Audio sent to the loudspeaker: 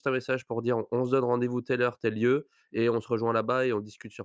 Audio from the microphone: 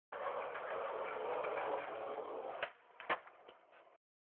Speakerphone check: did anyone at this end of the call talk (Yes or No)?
No